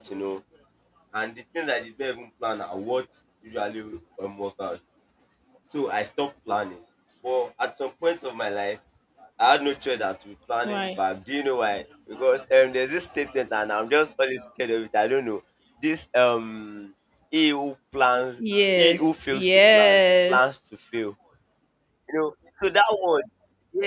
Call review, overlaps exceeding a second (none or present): present